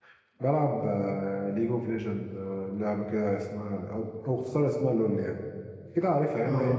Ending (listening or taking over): listening